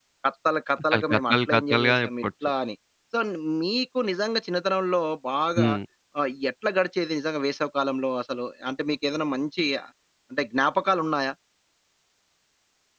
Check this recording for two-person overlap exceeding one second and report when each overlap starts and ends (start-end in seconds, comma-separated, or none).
0.9-2.2